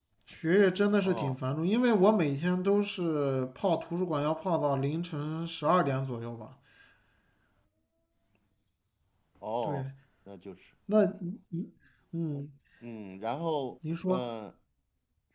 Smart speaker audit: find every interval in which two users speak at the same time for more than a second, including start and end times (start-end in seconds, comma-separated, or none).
none